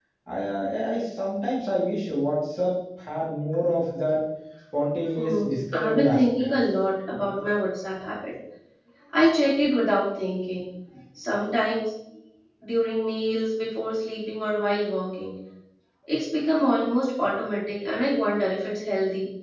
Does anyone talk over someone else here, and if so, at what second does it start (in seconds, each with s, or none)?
5.2 s